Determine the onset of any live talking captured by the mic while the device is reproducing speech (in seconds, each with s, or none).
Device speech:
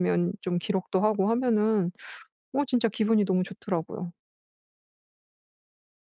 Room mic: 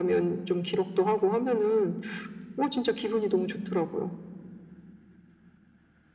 none